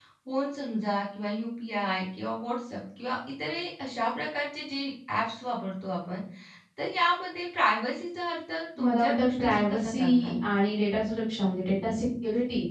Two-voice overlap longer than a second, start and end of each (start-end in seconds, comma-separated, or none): 8.8-10.3